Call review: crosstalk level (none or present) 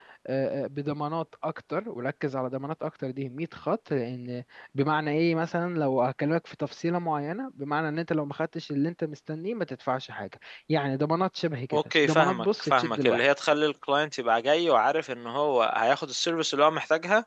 present